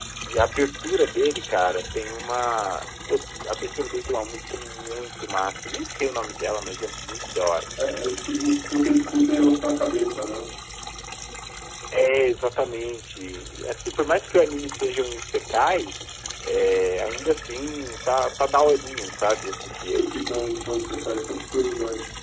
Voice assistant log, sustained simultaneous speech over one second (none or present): none